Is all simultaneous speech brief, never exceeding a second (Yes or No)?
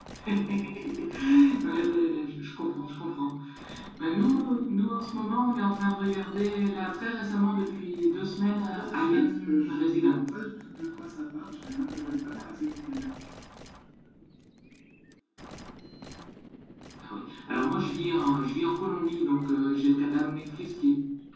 No